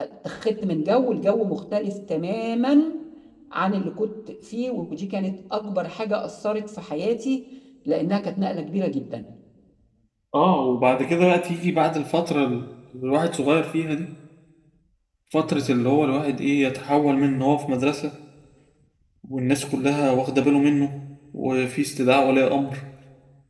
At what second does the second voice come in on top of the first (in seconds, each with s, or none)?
none